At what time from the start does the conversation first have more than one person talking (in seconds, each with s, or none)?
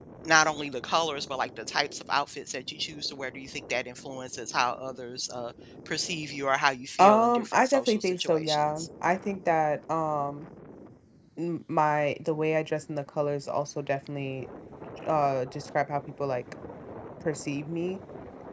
7.0 s